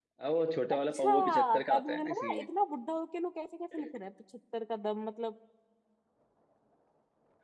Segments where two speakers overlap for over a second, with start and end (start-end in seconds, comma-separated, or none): 0.7-2.5